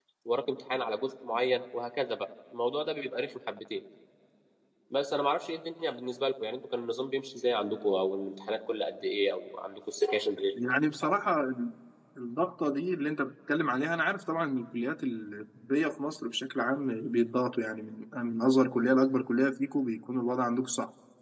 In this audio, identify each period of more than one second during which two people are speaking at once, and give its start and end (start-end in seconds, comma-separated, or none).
none